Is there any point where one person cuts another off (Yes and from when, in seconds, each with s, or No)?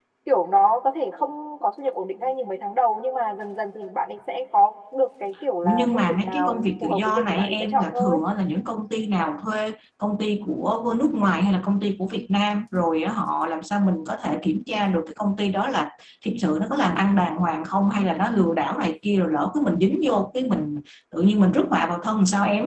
Yes, from 5.6 s